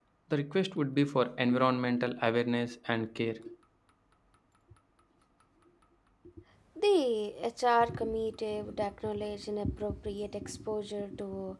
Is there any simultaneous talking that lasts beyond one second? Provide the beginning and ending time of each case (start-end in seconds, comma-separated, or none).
none